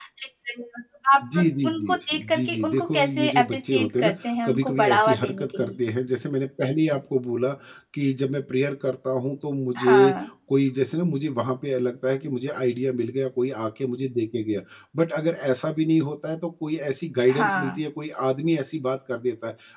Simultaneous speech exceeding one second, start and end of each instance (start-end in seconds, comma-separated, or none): 1.4-5.8